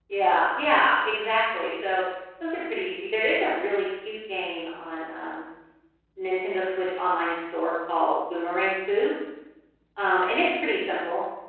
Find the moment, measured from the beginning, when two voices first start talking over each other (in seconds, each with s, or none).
none